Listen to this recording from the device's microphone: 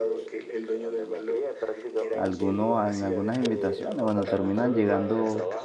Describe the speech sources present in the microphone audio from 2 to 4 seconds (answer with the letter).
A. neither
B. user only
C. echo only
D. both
D